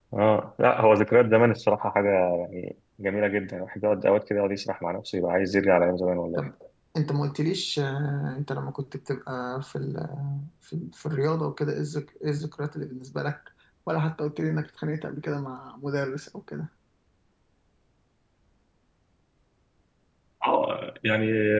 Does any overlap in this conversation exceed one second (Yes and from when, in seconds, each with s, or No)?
No